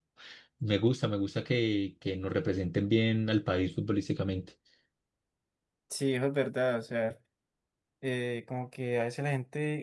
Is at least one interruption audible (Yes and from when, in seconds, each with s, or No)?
No